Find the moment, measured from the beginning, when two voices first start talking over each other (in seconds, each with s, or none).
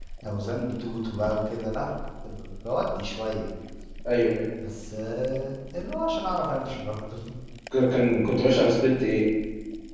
none